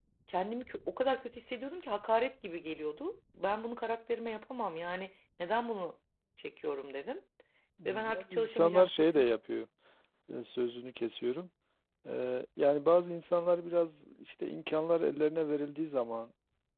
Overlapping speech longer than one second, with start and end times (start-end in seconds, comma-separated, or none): 7.8-9.3